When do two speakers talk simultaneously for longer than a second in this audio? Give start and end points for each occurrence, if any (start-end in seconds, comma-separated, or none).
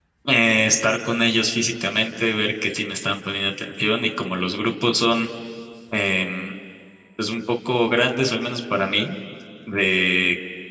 none